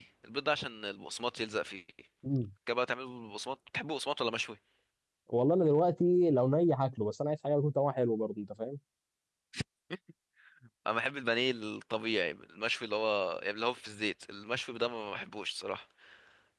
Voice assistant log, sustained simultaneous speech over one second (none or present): none